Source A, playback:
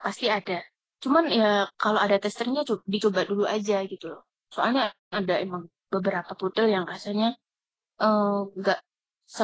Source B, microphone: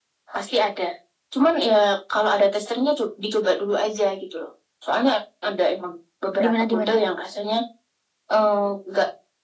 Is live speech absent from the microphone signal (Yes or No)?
No